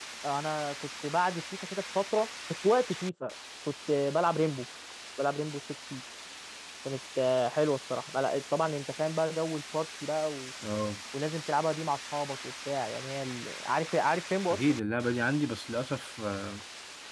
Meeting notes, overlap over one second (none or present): none